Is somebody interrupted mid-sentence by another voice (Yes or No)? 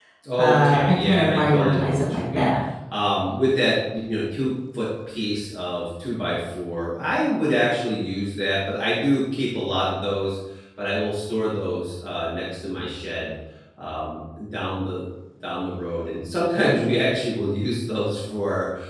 Yes